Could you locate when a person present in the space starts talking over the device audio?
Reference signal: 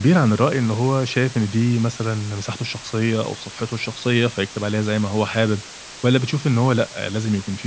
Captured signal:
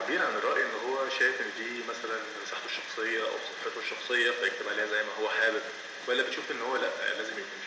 none

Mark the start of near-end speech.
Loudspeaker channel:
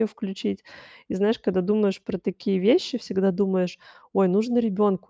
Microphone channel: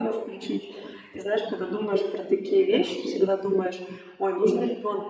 none

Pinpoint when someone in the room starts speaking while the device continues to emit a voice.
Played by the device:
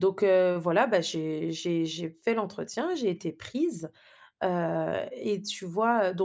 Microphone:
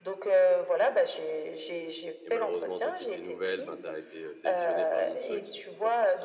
2.2 s

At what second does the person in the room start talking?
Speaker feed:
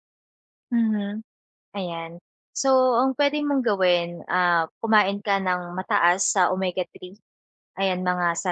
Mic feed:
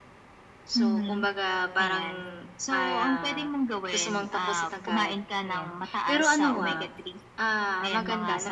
0.7 s

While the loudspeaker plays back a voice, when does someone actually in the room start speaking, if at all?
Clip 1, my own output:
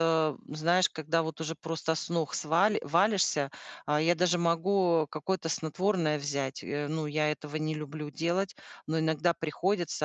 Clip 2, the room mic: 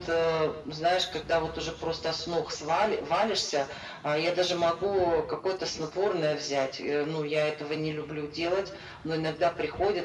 none

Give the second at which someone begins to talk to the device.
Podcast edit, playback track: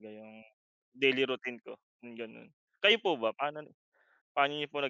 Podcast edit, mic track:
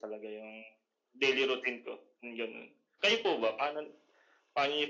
none

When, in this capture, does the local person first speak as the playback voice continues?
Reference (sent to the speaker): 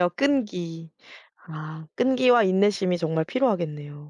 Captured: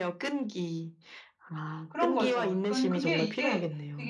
1.9 s

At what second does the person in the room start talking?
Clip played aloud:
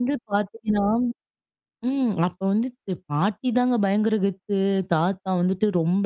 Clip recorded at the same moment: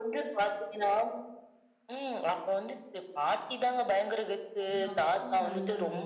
4.6 s

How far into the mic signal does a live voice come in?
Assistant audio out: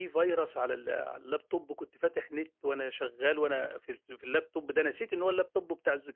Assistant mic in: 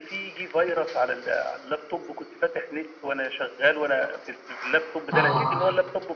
5.1 s

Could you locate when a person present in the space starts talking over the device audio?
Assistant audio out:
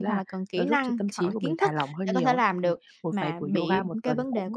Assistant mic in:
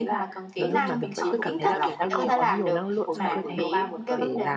0.6 s

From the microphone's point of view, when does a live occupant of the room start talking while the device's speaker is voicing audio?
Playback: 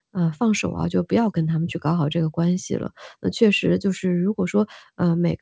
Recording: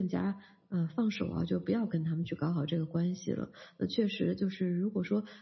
none

